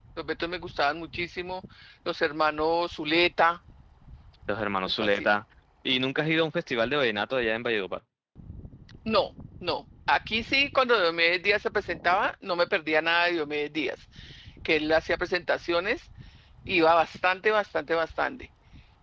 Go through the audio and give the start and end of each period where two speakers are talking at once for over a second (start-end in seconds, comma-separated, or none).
none